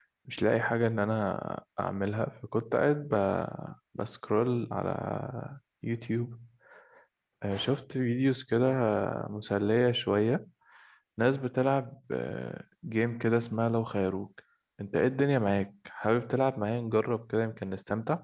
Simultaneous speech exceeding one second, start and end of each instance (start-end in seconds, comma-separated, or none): none